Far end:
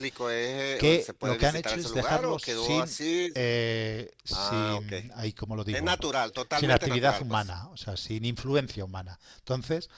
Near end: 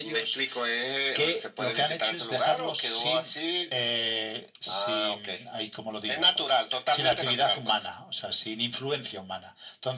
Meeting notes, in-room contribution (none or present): none